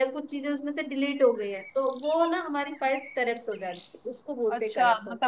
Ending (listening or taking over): taking over